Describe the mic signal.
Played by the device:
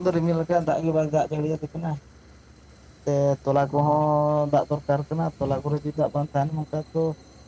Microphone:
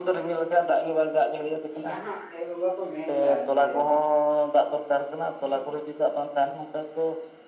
both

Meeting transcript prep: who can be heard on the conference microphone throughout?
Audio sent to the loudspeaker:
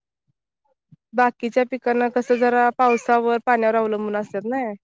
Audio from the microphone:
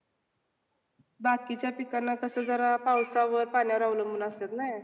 echo only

